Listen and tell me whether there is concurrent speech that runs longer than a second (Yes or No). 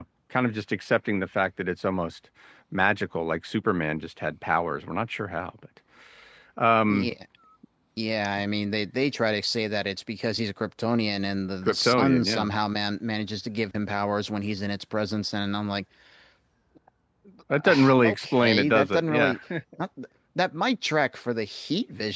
Yes